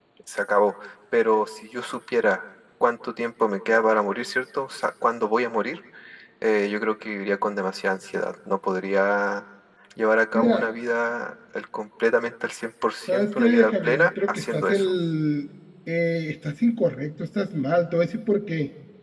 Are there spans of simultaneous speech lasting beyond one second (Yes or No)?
Yes